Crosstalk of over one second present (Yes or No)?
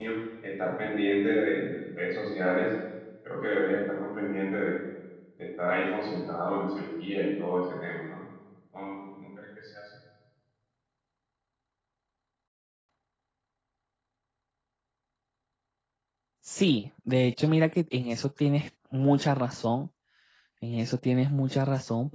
No